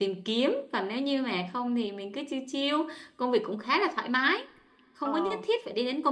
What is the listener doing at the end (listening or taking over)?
listening